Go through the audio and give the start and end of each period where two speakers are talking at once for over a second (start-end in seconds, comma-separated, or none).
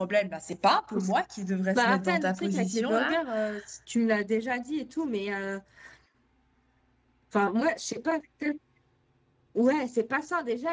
1.8-3.1